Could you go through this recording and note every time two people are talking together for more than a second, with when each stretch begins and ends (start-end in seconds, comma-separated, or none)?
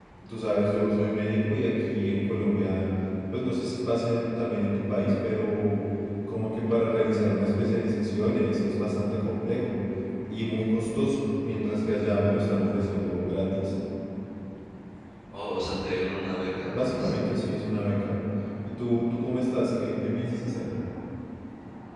none